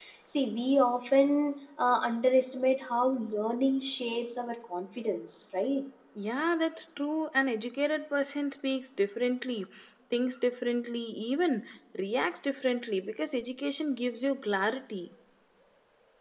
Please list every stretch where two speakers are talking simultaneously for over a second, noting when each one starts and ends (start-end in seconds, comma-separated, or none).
none